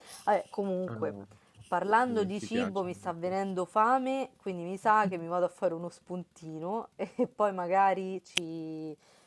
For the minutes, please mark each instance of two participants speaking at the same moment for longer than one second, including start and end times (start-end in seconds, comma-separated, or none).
2.1-3.3